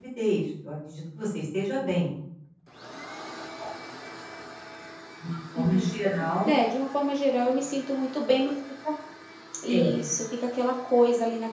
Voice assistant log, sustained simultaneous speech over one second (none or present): none